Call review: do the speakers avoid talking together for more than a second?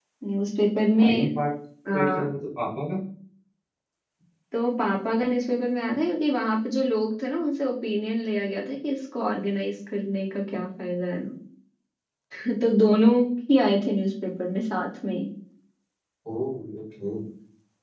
Yes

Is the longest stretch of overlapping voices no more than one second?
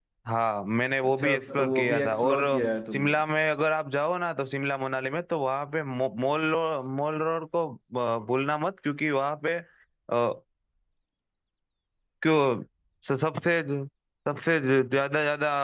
No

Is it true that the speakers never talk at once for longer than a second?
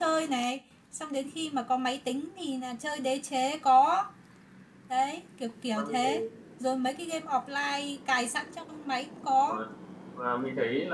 Yes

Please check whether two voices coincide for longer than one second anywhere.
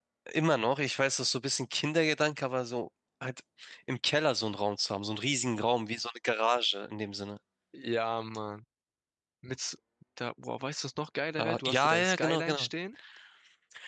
Yes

